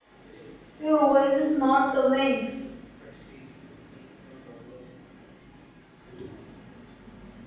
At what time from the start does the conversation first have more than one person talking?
0.8 s

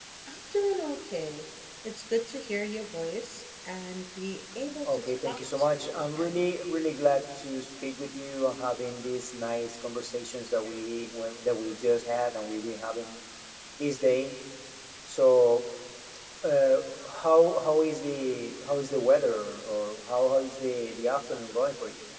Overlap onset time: 4.8 s

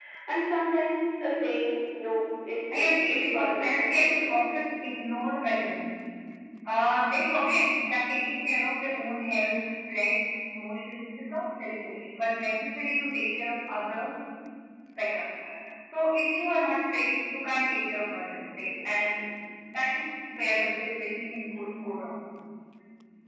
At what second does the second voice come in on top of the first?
2.7 s

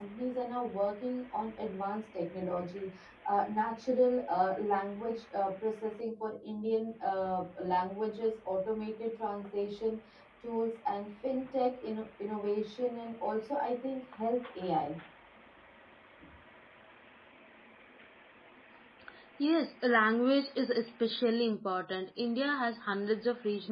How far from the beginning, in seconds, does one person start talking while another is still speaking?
none

